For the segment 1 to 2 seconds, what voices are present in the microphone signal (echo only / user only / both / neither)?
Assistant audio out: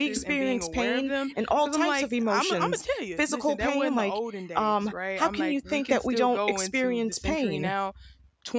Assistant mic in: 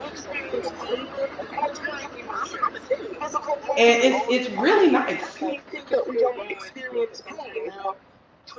echo only